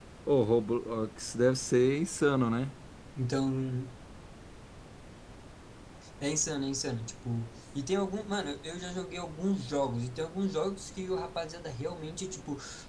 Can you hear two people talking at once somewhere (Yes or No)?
No